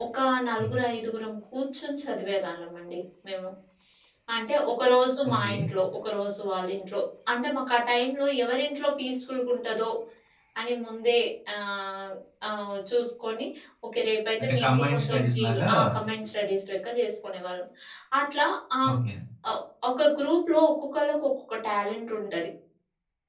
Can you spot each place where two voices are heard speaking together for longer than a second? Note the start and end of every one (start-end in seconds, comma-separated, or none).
14.4-15.7